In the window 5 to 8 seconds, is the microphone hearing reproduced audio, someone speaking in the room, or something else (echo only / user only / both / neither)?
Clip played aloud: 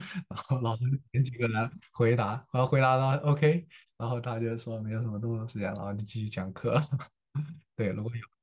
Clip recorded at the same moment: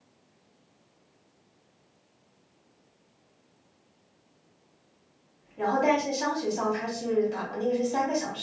user only